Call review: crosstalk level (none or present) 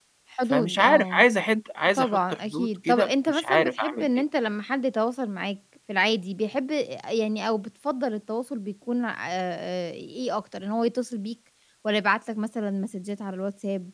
present